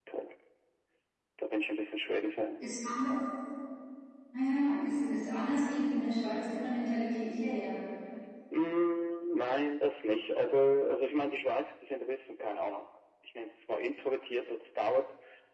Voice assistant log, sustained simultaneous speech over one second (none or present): none